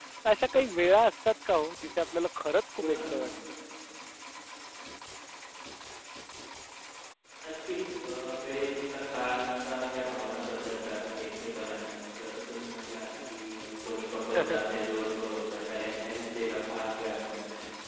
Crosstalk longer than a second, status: none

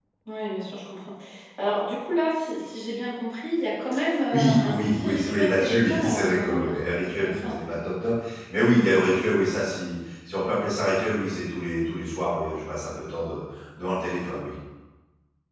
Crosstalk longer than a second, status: present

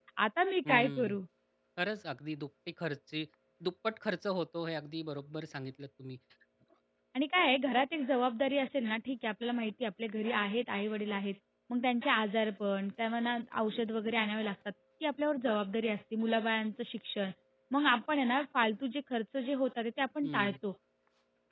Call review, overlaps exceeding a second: none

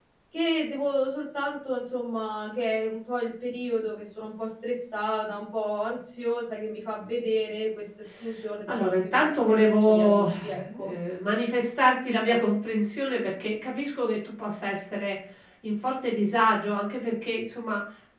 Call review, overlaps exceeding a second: present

